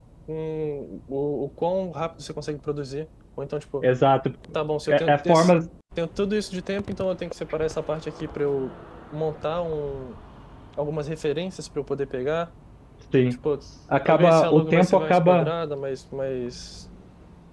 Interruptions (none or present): present